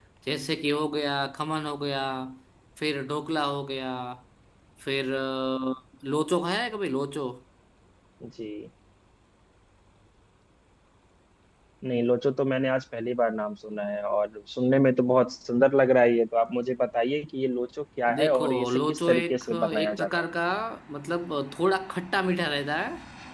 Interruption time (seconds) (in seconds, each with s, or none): 18.1 s